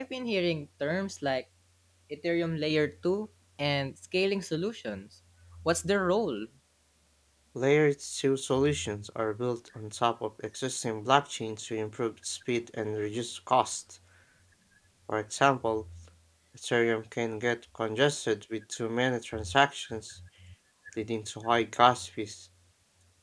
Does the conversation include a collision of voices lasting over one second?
No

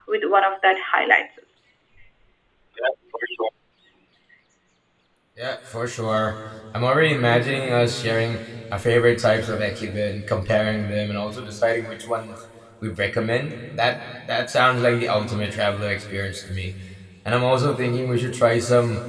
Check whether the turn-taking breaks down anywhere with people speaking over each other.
No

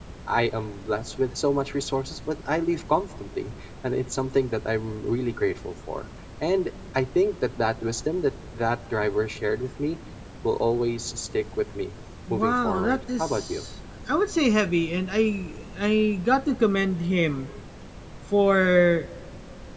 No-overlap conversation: No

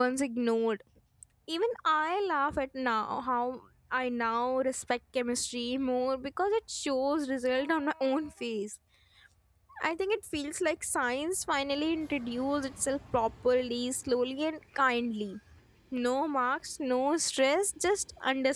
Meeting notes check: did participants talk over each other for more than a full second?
No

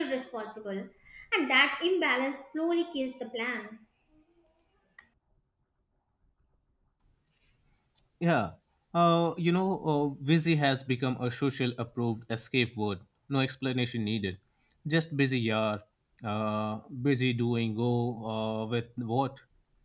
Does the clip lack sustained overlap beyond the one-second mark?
Yes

